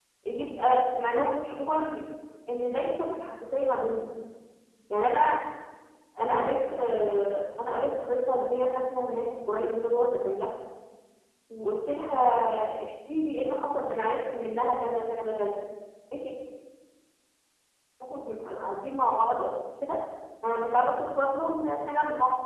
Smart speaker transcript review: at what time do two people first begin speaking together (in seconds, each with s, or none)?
none